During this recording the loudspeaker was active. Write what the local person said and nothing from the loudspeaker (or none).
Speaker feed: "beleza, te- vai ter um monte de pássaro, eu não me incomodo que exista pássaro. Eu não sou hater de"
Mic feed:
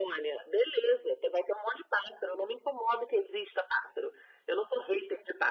none